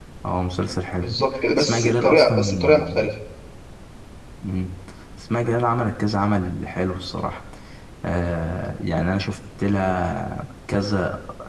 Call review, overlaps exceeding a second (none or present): present